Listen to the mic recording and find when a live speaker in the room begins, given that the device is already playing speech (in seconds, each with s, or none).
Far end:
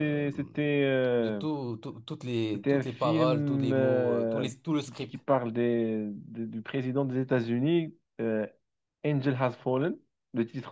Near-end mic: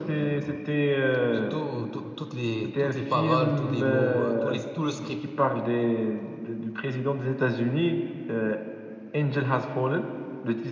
none